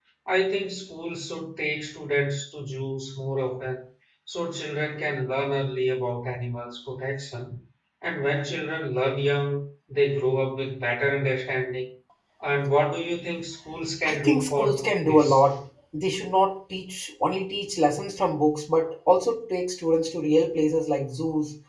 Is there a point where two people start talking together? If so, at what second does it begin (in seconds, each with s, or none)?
14.0 s